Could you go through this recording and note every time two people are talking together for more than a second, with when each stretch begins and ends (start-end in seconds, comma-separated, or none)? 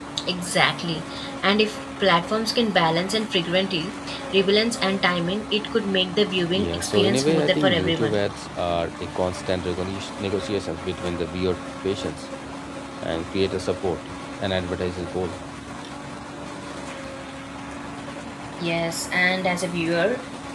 6.6-8.2